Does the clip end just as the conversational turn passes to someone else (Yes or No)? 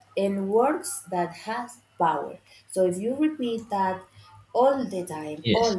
No